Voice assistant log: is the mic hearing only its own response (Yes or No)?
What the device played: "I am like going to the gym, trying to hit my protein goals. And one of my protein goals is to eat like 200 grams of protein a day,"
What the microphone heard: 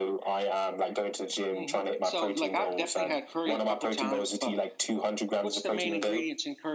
No